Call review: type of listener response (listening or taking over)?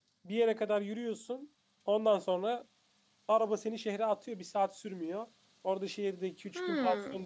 listening